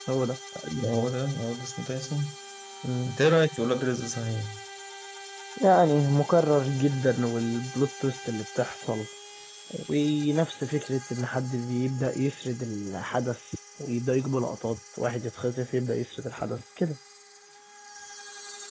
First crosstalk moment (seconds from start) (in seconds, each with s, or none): none